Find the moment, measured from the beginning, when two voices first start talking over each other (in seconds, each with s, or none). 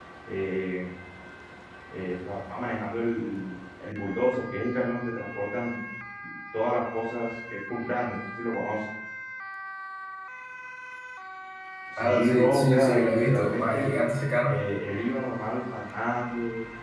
12.0 s